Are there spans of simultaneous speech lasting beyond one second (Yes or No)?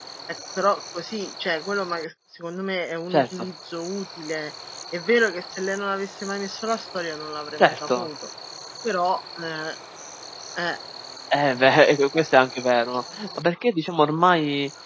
No